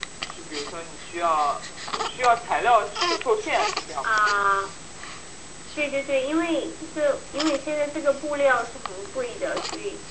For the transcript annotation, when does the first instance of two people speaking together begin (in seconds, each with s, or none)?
none